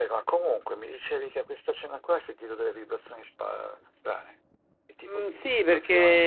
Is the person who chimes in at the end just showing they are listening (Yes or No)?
No